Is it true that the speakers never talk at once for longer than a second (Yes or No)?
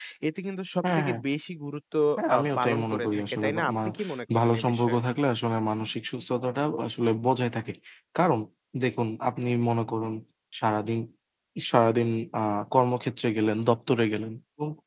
No